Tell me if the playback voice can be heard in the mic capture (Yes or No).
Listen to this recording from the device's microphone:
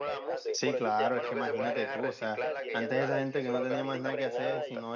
Yes